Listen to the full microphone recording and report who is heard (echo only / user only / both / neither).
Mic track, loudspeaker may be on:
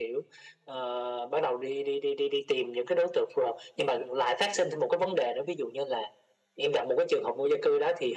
echo only